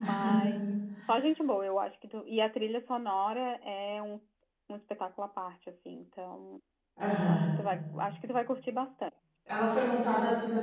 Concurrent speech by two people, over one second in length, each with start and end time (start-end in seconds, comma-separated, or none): none